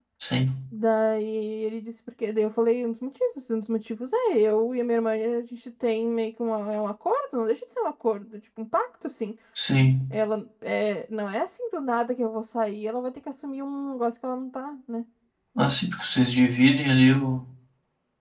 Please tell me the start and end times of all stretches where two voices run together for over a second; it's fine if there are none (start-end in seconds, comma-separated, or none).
none